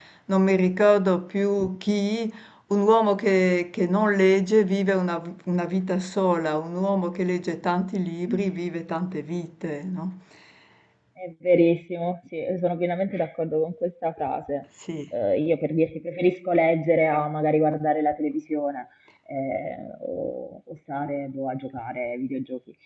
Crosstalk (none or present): none